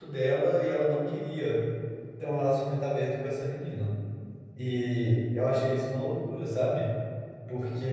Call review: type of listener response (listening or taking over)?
listening